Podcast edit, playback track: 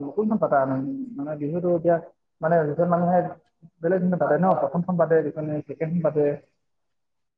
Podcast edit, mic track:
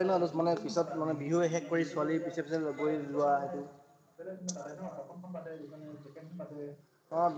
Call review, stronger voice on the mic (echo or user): user